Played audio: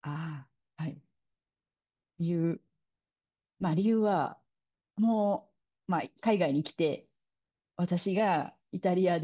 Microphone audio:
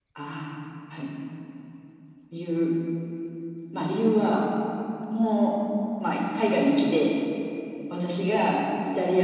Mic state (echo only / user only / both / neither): echo only